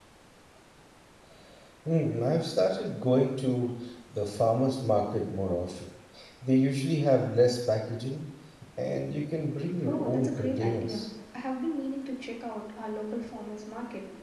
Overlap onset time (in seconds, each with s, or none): 9.8 s